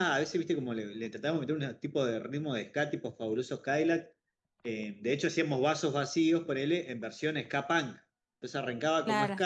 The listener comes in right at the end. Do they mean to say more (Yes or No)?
No